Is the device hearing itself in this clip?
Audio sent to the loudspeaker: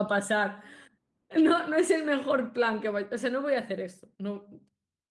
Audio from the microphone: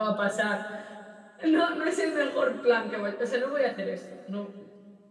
Yes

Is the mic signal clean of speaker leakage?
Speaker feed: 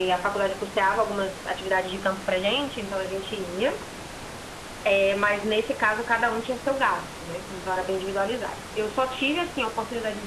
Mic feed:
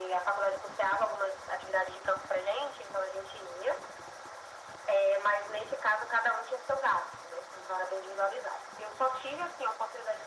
No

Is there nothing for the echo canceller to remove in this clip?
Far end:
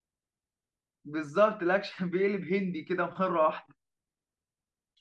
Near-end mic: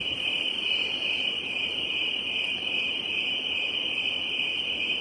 Yes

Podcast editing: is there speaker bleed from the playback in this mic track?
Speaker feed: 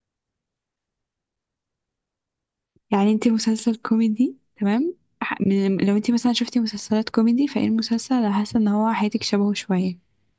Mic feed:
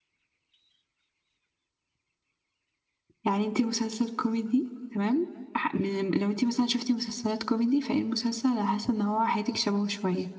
Yes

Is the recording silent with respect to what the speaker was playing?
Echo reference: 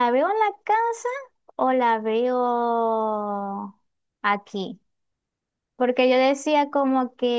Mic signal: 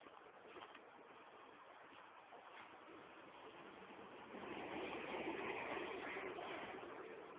Yes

